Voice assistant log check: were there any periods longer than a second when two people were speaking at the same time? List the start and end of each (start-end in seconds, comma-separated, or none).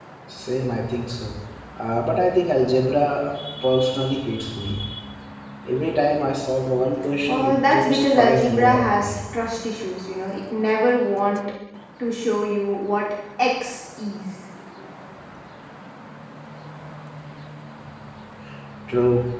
7.3-9.2